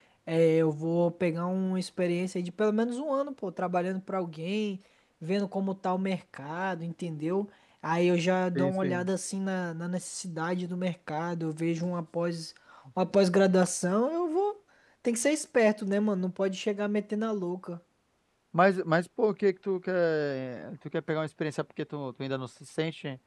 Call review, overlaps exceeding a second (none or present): none